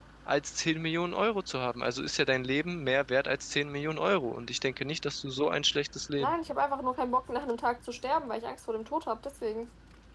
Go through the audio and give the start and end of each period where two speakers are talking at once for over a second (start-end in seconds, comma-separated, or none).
none